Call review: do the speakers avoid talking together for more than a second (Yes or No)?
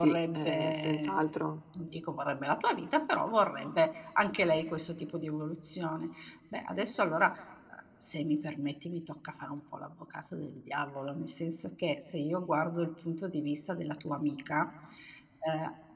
No